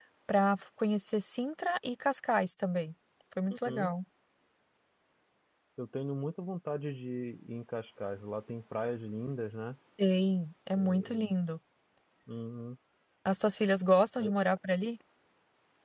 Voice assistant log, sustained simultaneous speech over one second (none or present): none